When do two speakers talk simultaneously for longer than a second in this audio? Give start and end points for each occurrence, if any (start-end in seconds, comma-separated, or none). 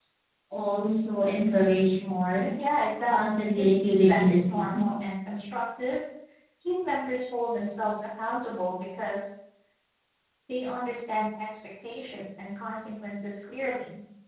3.0-4.8